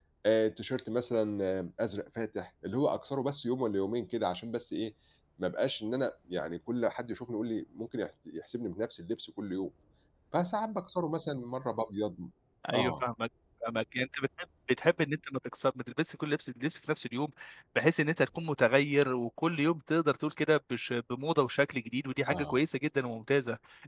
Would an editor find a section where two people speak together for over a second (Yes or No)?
No